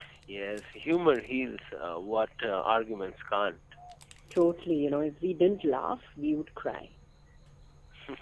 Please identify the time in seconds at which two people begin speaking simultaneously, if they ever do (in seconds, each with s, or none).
none